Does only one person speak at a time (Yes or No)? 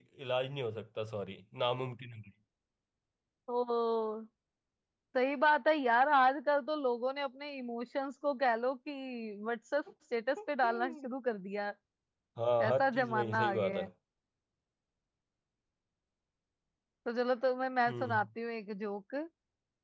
No